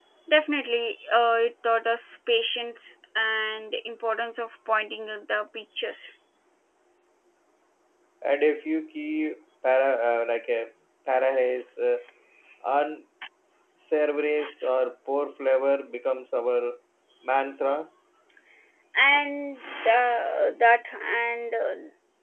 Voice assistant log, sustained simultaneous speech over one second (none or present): none